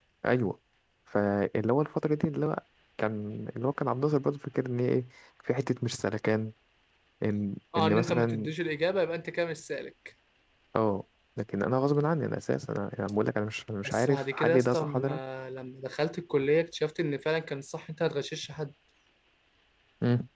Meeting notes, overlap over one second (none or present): present